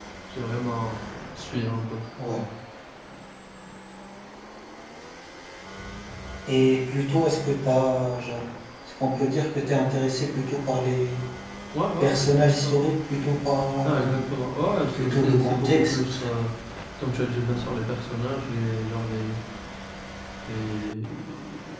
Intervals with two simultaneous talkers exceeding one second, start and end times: 14.8-16.2

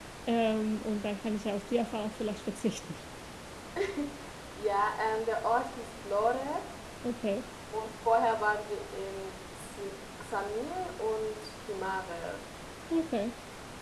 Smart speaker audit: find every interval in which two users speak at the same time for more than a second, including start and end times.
none

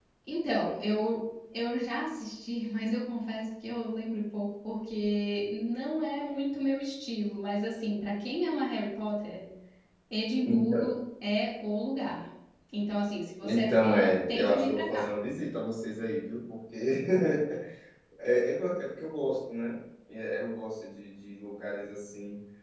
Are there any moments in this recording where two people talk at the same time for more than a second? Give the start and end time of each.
13.4-15.1

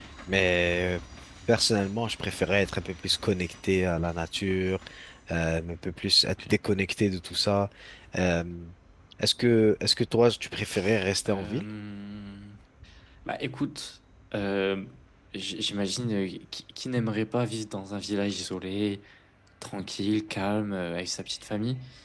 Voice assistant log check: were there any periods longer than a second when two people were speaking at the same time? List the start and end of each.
none

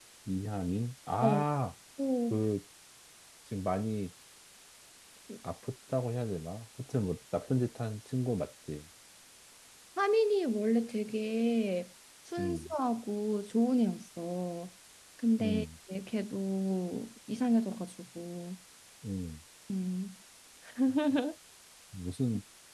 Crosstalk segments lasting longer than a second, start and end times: none

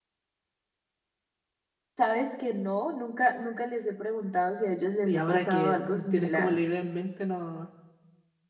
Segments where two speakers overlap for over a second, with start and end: 5.0-6.6

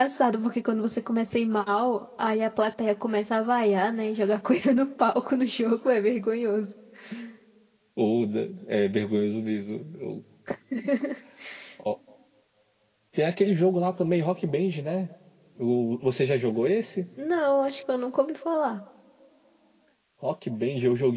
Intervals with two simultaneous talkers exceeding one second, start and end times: none

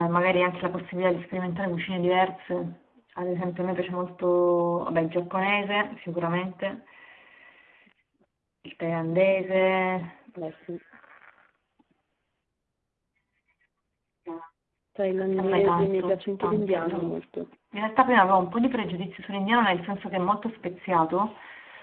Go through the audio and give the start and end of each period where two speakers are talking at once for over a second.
15.3-16.9

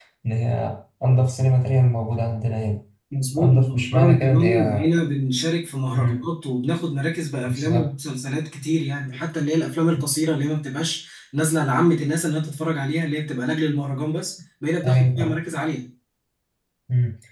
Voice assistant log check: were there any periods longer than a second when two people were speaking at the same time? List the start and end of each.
3.4-4.8

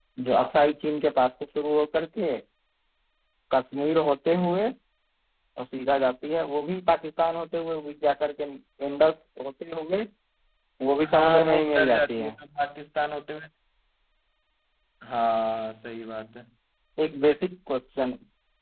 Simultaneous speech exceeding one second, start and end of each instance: 11.1-12.3

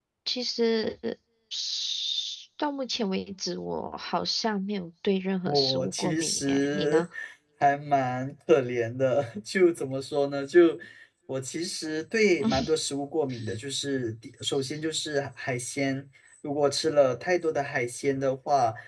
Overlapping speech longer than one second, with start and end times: 5.5-7.0

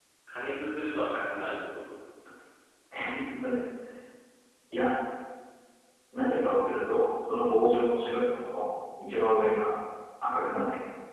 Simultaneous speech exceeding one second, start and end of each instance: none

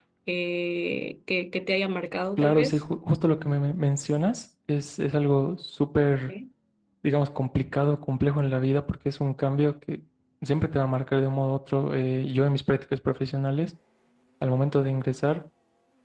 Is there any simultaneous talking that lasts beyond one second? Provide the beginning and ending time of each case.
none

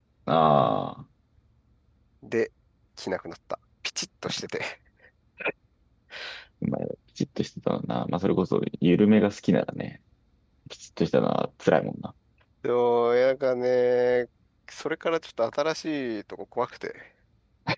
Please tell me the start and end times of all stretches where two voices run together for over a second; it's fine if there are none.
none

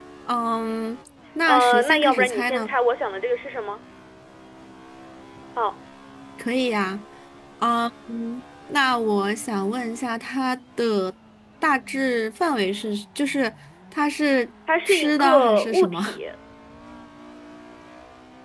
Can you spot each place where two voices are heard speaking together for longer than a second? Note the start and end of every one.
1.5-2.7, 14.8-16.2

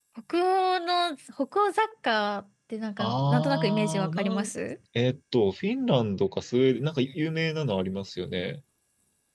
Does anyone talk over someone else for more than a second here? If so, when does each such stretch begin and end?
3.0-4.5

